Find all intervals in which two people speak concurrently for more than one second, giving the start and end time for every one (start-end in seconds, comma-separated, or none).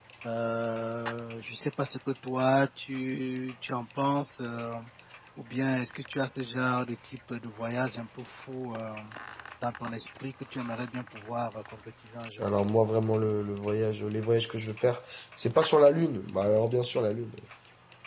none